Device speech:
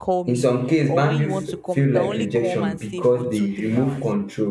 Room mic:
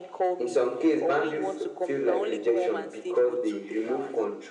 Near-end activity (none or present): none